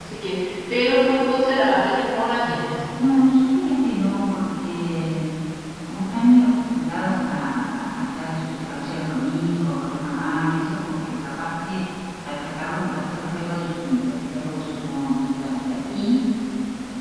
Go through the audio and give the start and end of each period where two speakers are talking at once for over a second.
none

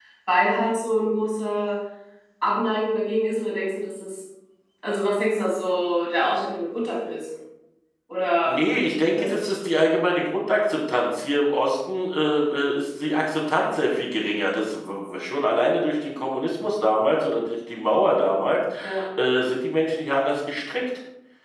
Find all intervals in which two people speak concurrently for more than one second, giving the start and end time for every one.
none

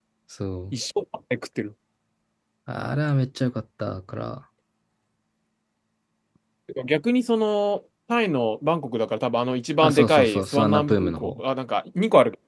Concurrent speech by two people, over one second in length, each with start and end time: 9.8-11.4

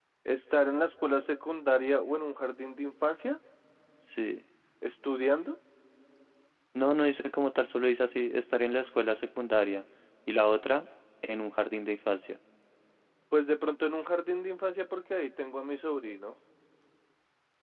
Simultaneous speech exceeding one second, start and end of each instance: none

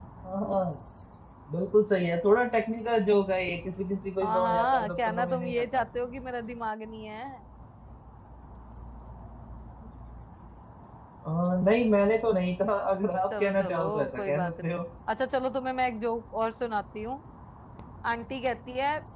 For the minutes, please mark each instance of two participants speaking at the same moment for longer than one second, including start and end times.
4.2-5.8, 13.4-14.8

